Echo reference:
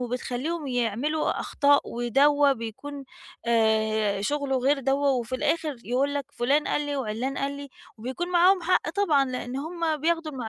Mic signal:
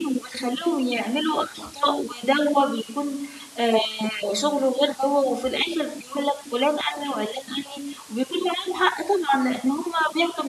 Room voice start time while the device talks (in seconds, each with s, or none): none